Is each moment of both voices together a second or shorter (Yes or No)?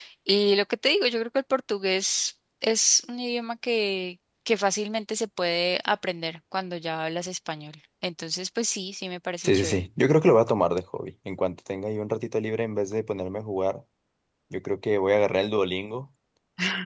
Yes